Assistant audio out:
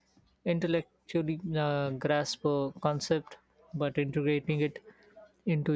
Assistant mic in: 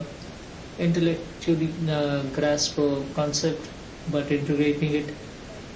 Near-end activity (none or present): none